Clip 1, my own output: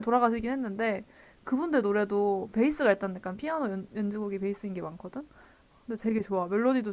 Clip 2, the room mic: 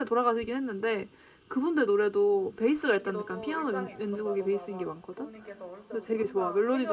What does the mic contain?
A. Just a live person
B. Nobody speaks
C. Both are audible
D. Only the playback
C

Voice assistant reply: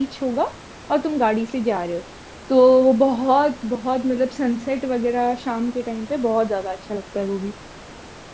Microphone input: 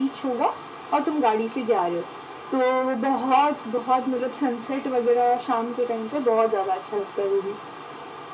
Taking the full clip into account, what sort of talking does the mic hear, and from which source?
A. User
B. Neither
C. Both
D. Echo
D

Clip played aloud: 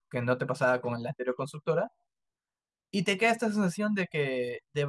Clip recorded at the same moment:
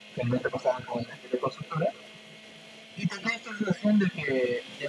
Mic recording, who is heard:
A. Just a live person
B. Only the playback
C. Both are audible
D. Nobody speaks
B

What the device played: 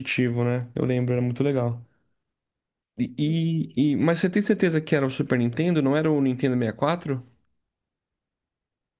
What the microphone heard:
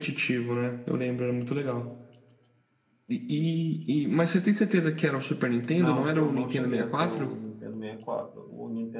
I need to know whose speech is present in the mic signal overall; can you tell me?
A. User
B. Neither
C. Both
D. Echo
C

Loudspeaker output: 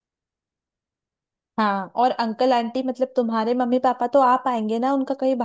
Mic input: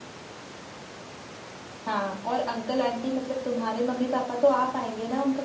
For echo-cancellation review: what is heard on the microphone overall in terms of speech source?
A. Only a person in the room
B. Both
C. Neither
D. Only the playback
D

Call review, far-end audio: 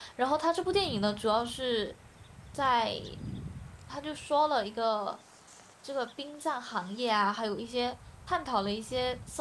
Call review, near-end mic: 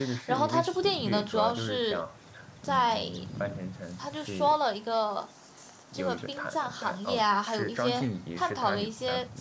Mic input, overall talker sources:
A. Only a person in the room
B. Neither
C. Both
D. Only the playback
C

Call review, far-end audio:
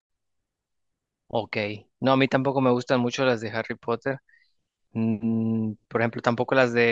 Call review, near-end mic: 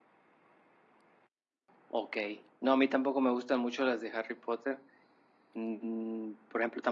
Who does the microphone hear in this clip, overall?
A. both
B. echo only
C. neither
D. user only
B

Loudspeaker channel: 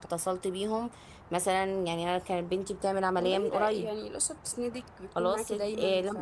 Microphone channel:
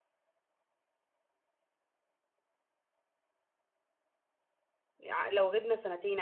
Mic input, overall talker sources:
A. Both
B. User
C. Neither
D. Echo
B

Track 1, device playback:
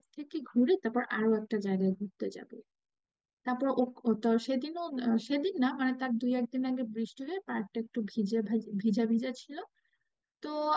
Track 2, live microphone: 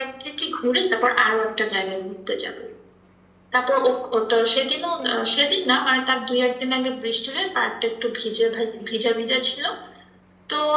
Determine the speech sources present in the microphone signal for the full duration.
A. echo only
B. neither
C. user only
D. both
A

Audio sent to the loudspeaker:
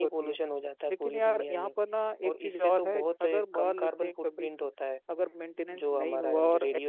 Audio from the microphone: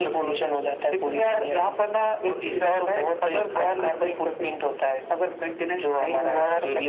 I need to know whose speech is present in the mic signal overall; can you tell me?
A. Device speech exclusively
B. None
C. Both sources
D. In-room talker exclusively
A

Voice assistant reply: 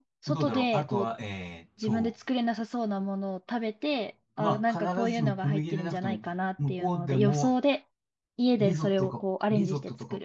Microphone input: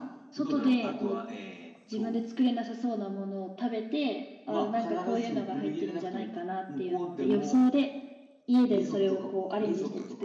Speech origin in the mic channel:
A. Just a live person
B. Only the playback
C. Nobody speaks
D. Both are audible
B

